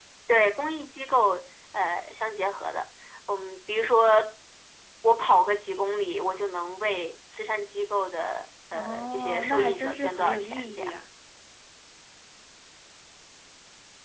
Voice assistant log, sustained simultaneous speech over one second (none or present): present